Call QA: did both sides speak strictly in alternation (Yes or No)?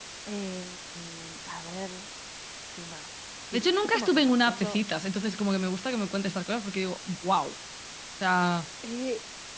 No